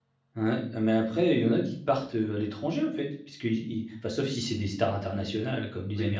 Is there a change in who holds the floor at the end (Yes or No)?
No